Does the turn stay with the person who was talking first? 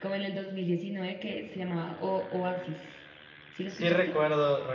No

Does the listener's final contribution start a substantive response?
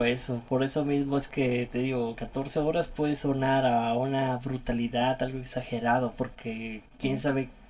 No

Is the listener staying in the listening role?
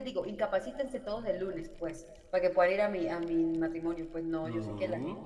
Yes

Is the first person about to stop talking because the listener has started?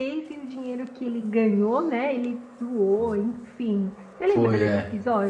Yes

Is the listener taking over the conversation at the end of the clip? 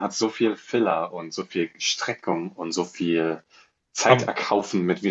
No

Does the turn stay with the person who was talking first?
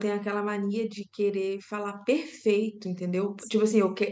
Yes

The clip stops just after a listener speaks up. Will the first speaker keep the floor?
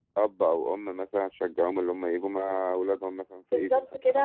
No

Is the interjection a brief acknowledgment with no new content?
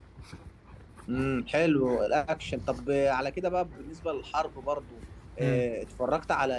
Yes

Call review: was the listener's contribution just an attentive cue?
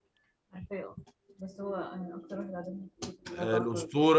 No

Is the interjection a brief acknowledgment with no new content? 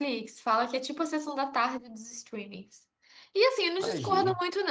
Yes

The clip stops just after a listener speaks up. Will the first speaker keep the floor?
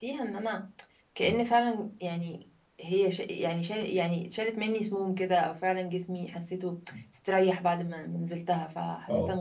Yes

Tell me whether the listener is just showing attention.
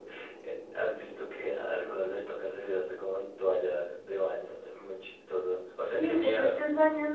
No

